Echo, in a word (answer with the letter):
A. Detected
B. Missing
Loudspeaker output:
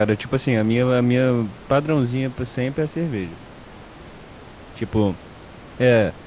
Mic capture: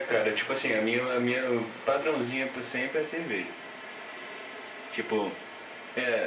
A